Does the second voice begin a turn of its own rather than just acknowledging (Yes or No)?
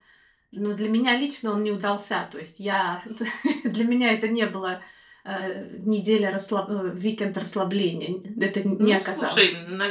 Yes